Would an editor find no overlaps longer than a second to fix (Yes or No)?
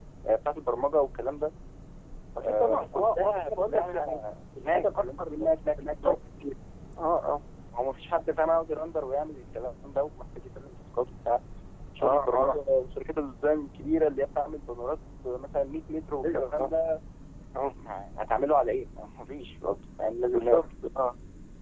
No